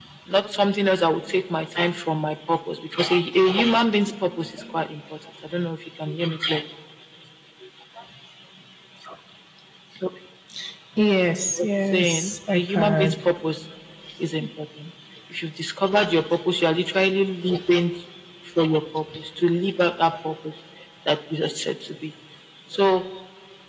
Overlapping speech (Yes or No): Yes